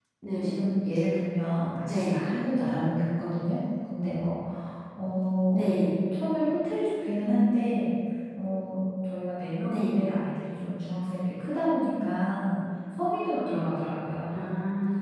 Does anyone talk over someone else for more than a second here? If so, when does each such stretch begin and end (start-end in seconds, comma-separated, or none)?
none